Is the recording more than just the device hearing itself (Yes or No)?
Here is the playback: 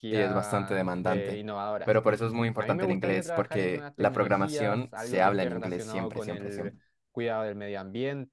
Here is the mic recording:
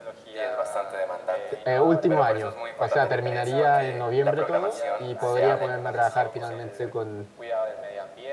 Yes